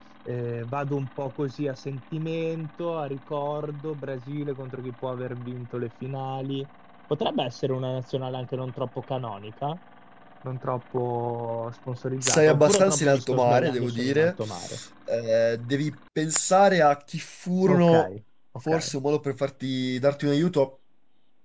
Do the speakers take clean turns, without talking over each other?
No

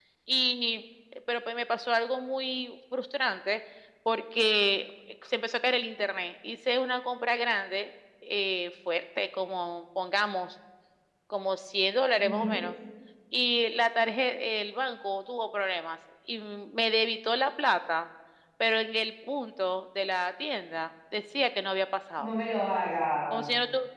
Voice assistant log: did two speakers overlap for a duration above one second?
No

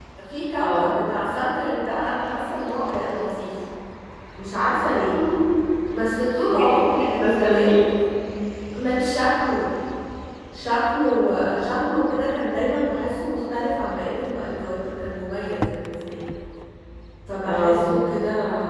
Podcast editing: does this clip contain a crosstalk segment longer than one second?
Yes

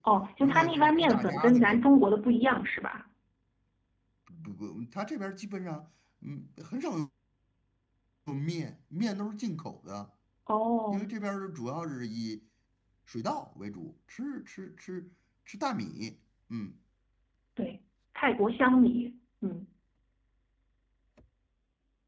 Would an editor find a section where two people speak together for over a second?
Yes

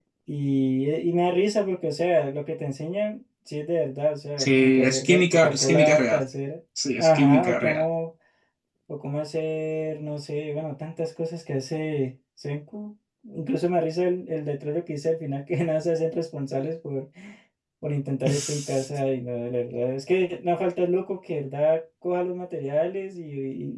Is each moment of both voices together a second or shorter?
No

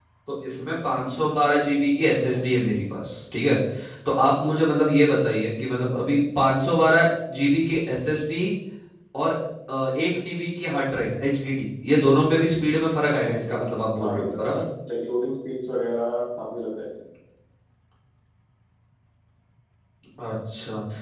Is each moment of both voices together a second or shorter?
No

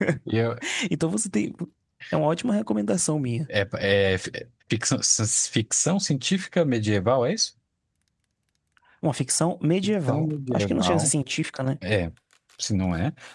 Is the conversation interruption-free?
No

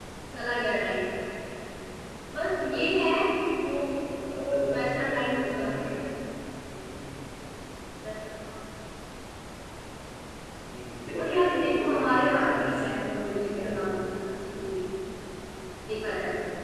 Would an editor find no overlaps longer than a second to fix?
No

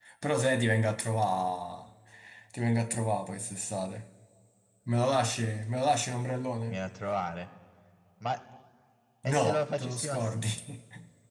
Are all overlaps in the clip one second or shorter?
No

